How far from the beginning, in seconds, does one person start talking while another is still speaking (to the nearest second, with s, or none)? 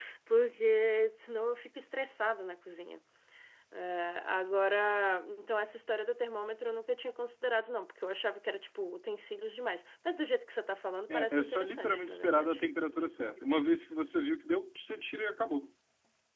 11 s